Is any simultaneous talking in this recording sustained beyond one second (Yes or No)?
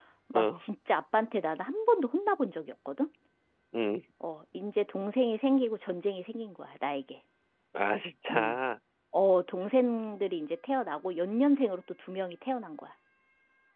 No